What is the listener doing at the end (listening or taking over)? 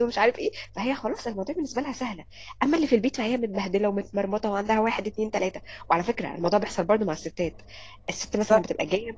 listening